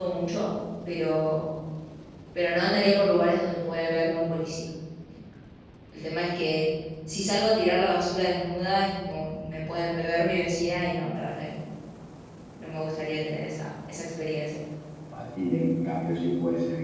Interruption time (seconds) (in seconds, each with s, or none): none